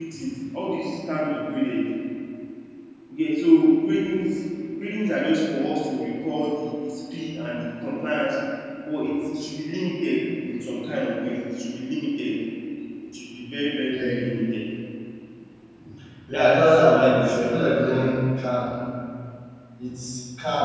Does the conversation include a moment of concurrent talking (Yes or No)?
Yes